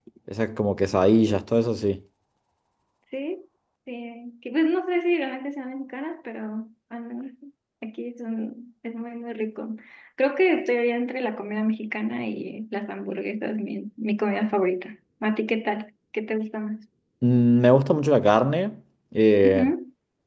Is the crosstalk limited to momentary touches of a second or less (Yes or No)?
Yes